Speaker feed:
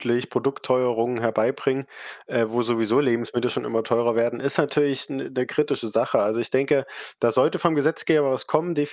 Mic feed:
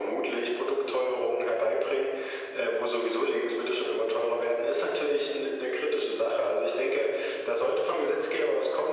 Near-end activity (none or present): none